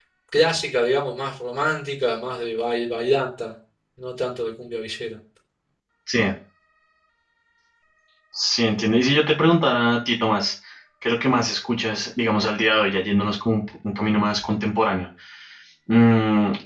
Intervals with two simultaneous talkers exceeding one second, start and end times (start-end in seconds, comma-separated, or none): none